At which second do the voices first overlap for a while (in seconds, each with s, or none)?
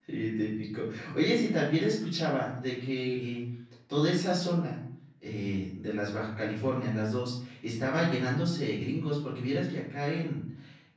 none